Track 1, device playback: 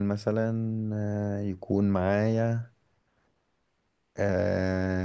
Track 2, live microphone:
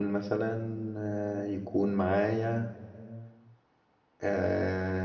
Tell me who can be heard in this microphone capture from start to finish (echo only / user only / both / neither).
echo only